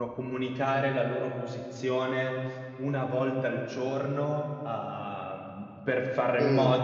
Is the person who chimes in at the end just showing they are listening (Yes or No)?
Yes